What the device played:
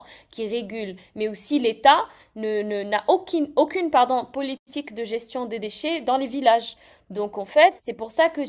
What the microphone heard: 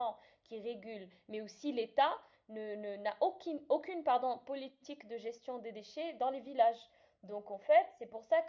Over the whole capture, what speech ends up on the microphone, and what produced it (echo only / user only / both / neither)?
echo only